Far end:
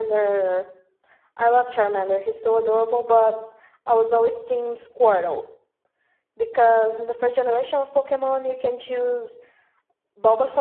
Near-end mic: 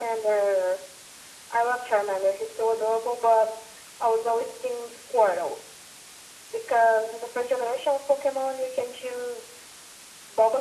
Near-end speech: none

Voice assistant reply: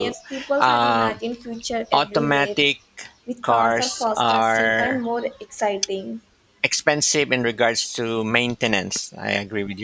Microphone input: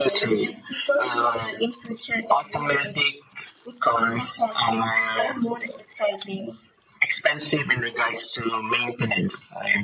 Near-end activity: none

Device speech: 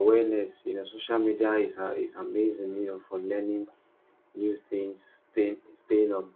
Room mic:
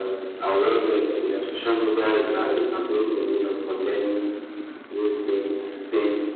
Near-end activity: none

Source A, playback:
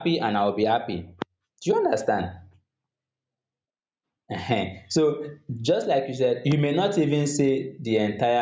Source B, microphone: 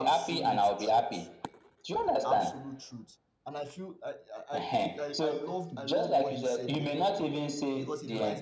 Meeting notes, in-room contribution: present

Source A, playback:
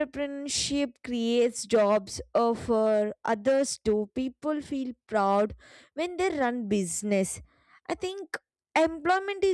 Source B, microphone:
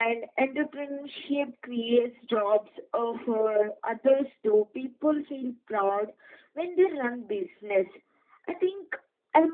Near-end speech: none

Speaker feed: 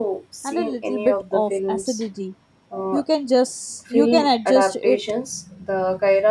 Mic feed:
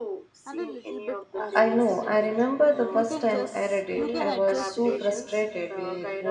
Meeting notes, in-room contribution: present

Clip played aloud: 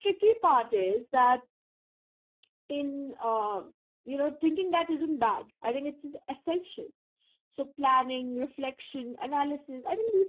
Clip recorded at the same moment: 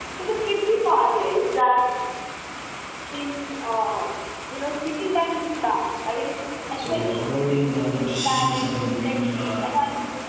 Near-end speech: present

